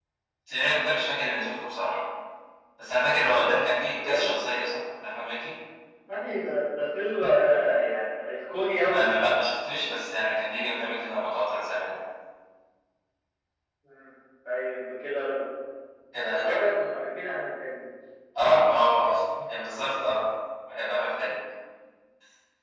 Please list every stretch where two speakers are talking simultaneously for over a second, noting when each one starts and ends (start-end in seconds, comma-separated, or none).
none